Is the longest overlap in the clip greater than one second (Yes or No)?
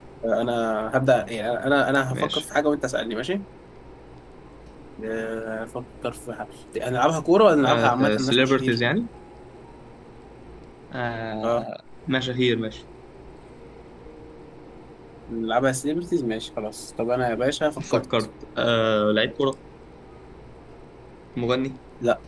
Yes